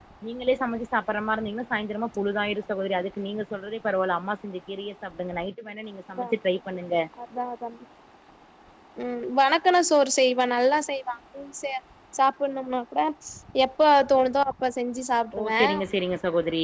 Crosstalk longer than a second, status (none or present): none